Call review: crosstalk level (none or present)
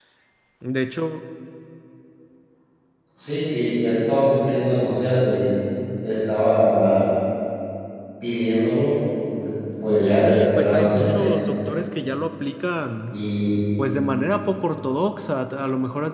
present